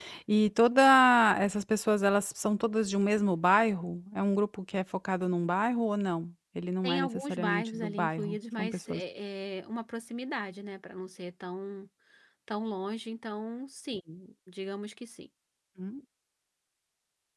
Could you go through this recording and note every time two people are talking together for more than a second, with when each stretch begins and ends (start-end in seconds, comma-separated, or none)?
6.8-9.0